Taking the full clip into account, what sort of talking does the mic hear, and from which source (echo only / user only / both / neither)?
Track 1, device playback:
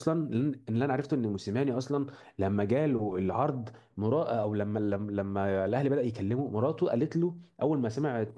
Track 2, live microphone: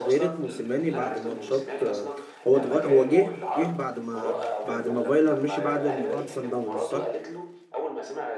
both